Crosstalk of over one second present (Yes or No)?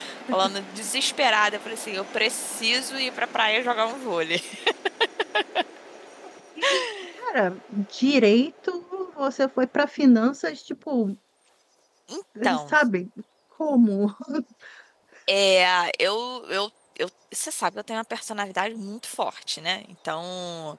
No